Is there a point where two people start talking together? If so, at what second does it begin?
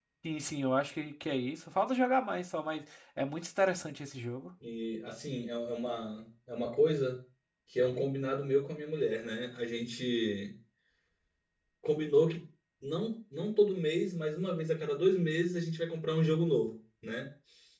none

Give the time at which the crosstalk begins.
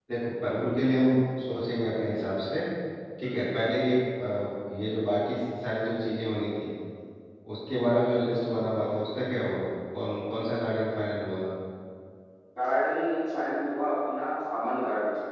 none

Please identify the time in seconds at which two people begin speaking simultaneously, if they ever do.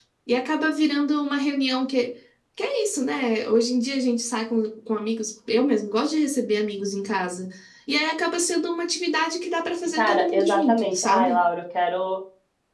10.0 s

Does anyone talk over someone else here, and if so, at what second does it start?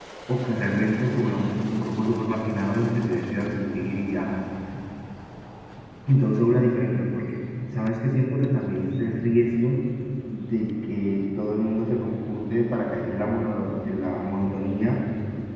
none

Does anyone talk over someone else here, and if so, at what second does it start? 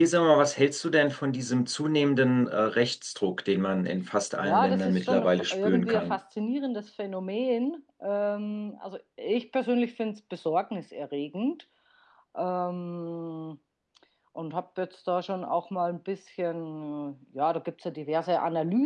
4.4 s

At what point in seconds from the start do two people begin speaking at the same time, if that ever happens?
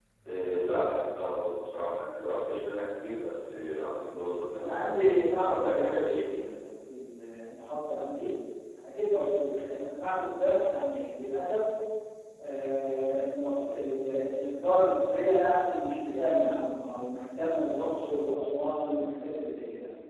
4.6 s

